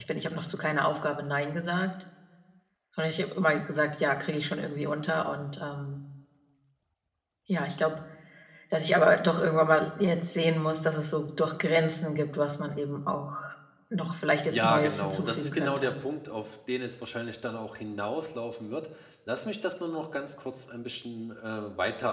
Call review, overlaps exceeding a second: present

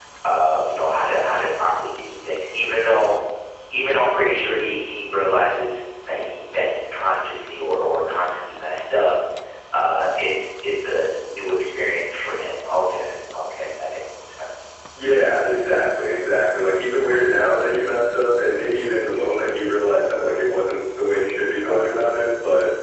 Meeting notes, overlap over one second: none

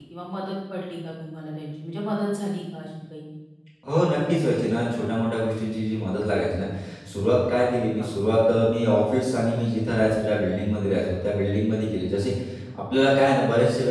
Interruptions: none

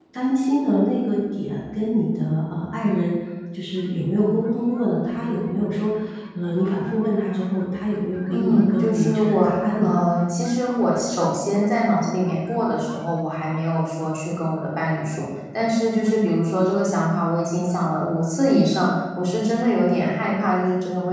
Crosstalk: present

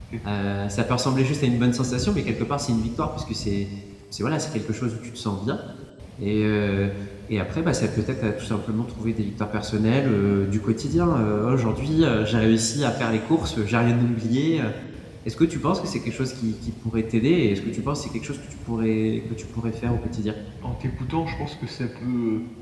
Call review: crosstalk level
none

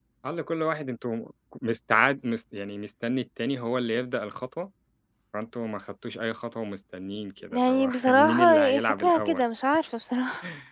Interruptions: present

